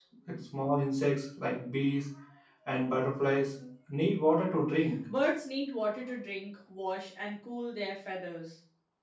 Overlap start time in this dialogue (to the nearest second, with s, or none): none